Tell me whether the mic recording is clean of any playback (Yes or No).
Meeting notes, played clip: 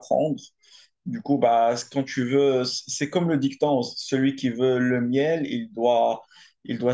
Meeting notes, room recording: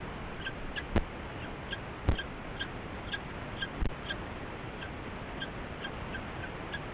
Yes